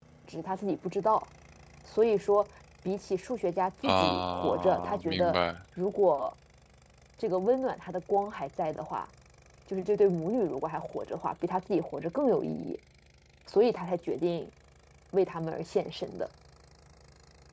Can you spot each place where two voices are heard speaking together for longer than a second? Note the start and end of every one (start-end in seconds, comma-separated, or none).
3.8-5.4